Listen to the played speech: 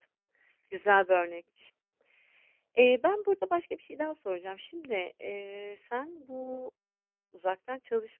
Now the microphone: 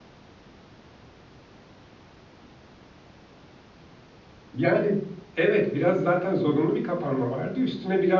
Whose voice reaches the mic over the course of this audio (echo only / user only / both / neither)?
user only